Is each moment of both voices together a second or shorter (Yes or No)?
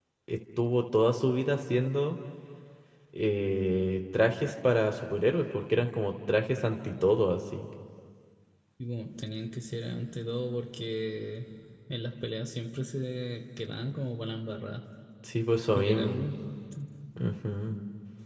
Yes